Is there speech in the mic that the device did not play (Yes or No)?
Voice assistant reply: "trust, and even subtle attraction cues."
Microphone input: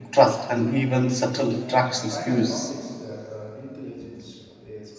Yes